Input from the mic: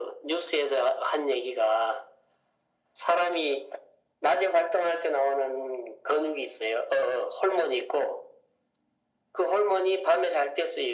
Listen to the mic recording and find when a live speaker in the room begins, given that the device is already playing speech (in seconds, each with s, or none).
none